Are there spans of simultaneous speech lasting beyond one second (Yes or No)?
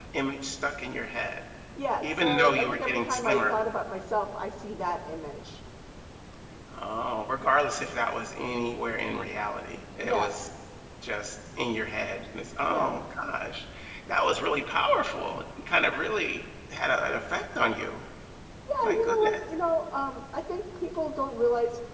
Yes